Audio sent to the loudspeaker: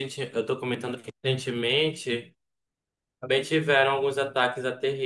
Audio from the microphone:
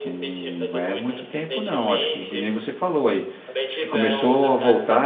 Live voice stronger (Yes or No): Yes